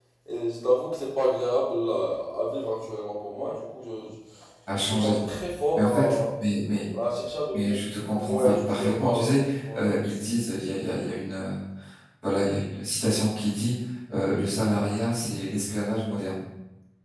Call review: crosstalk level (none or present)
present